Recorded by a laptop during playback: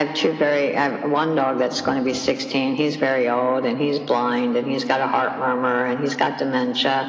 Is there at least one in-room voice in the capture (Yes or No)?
No